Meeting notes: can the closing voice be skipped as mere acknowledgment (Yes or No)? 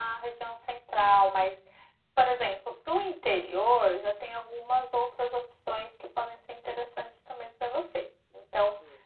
Yes